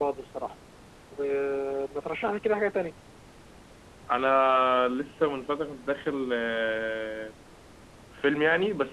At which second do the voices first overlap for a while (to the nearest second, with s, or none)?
none